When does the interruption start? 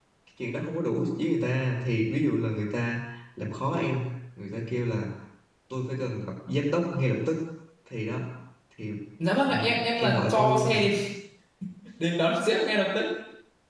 9.4 s

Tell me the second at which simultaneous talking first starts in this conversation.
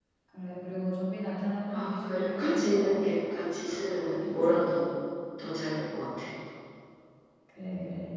1.7 s

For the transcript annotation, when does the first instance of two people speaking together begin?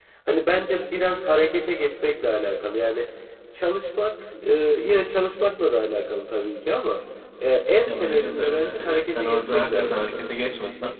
7.8 s

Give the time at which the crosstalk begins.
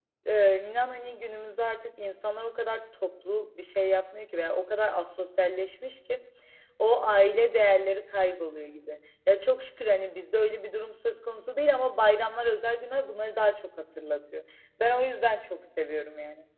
none

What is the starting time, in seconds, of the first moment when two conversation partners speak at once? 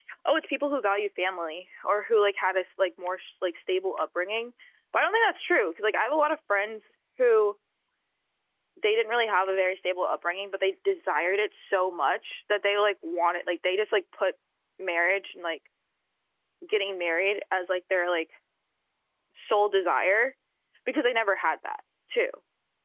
none

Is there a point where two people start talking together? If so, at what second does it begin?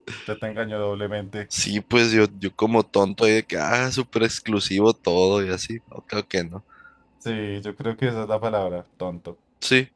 none

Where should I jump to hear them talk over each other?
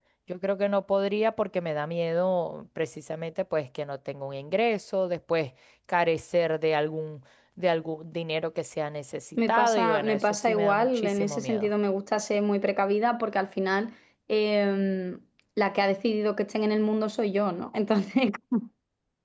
9.4 s

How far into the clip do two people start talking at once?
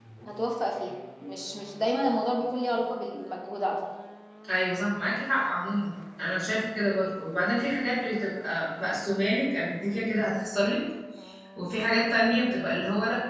none

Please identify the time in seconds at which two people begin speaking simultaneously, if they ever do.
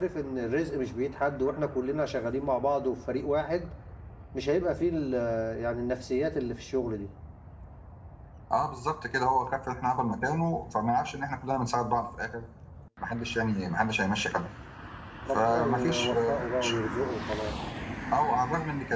15.3 s

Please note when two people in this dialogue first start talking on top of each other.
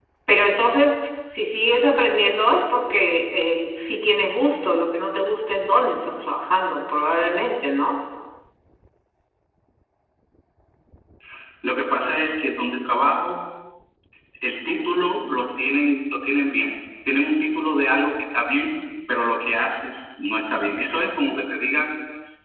none

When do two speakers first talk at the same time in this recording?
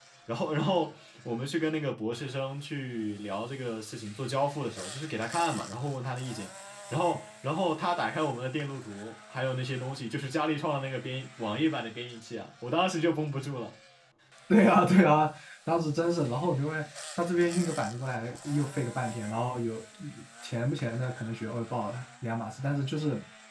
none

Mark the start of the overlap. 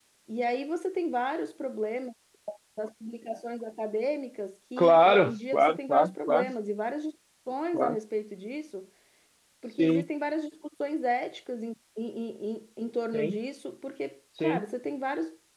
4.8 s

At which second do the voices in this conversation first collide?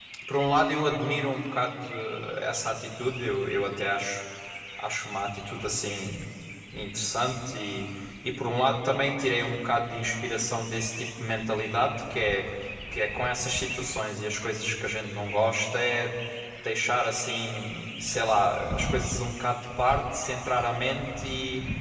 none

